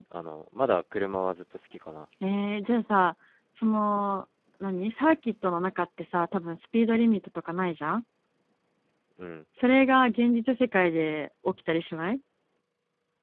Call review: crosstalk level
none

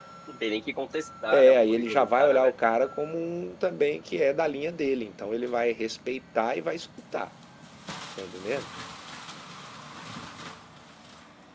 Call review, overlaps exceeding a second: present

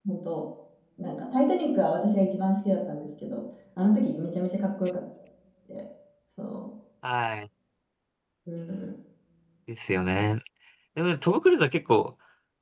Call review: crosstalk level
none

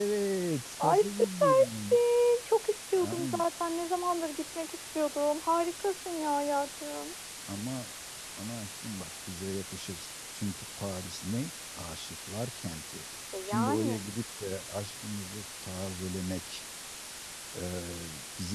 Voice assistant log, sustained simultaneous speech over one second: present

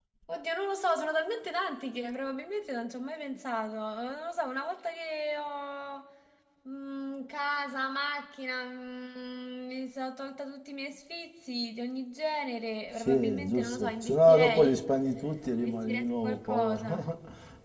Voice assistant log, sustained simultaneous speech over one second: present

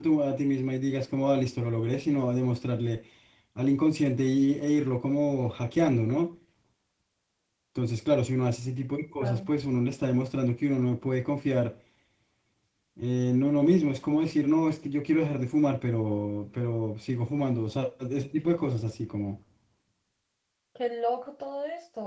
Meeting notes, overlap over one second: none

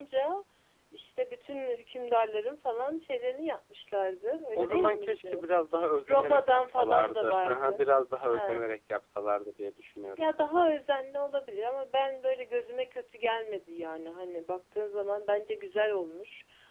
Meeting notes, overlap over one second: present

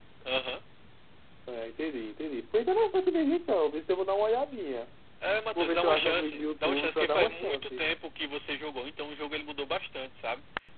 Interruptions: present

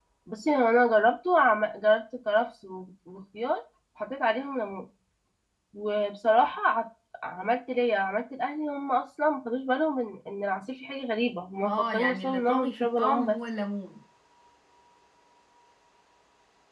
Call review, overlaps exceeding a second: present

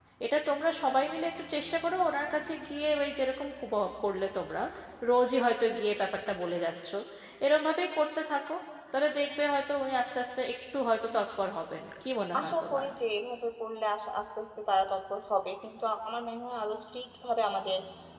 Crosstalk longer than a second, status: none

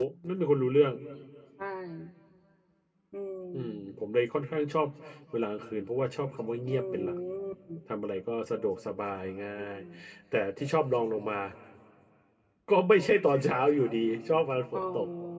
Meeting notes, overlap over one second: none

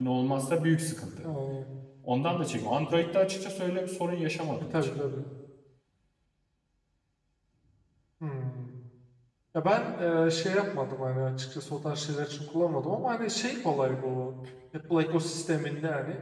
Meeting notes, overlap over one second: none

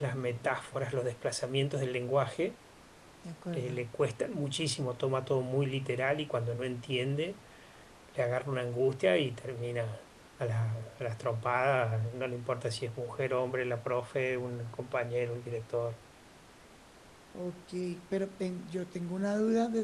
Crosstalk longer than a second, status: none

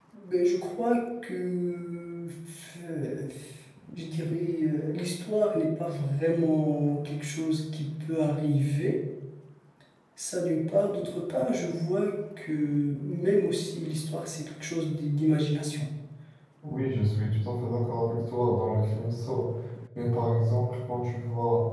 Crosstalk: none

